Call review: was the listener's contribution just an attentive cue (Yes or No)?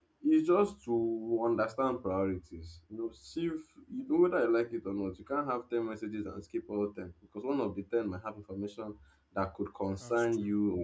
Yes